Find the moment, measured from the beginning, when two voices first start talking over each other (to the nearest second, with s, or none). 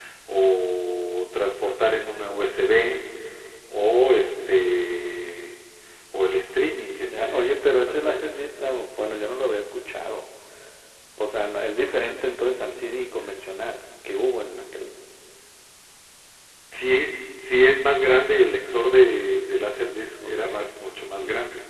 7 s